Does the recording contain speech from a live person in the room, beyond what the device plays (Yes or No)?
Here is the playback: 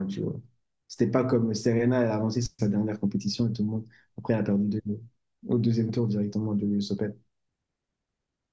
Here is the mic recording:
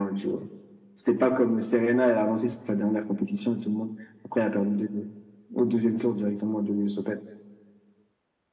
No